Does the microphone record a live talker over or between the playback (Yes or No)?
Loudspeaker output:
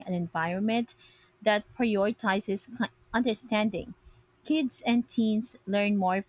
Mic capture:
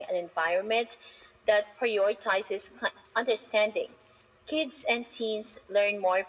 No